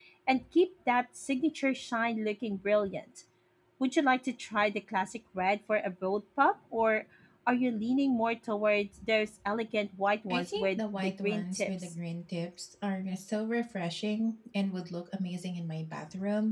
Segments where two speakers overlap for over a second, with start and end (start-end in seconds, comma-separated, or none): 10.3-11.9